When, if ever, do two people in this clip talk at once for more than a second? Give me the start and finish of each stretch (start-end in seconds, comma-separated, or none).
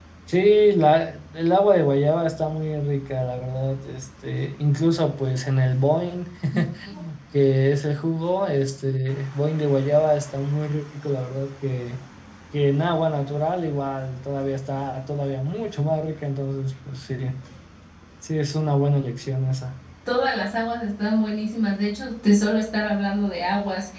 none